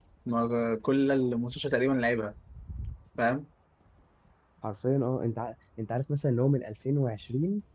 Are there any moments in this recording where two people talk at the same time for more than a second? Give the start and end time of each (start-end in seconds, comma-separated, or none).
none